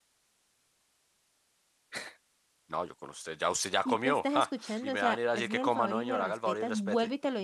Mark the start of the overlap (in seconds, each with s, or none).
3.9 s